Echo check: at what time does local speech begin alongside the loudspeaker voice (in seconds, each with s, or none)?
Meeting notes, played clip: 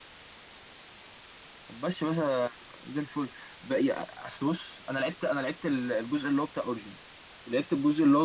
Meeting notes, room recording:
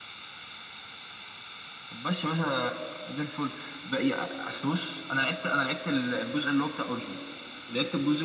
none